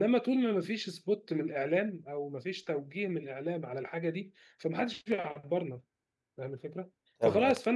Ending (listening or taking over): listening